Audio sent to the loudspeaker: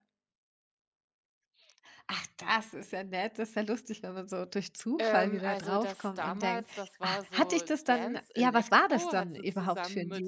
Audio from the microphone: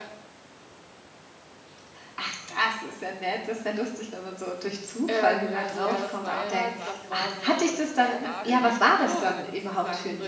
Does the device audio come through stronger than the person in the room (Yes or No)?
Yes